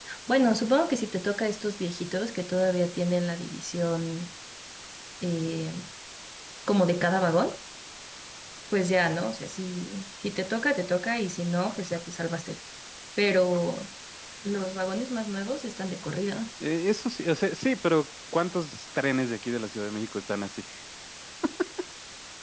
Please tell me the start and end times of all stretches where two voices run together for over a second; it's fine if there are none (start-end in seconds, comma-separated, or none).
none